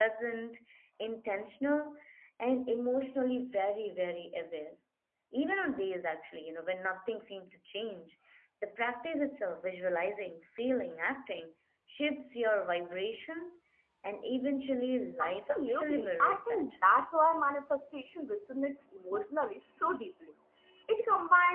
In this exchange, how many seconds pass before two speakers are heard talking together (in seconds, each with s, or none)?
15.2 s